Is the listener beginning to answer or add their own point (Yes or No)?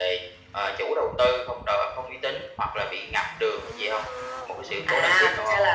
Yes